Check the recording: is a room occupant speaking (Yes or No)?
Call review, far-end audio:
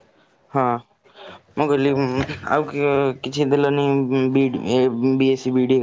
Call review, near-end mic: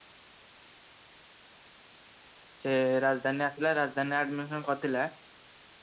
Yes